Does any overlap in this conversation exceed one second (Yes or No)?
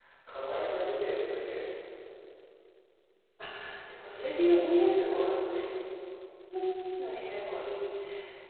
No